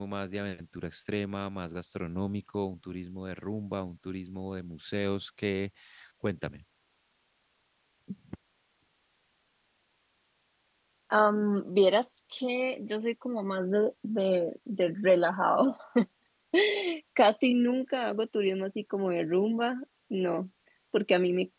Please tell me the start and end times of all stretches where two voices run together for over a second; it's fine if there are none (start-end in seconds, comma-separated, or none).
none